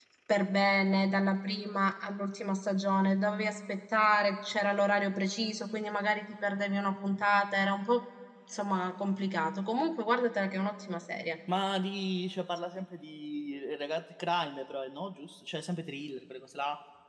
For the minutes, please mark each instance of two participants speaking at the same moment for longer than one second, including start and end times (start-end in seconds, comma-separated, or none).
none